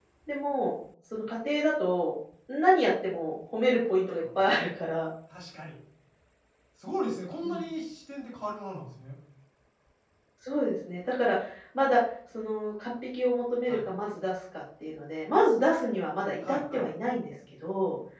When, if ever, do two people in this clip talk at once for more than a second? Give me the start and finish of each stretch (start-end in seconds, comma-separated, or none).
none